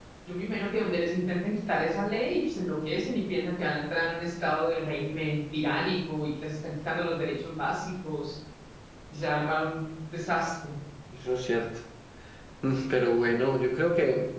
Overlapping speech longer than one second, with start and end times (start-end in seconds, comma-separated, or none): none